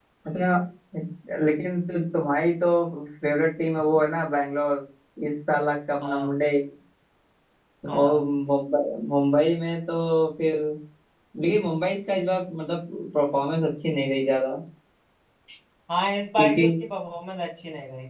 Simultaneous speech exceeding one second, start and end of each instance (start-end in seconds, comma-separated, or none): none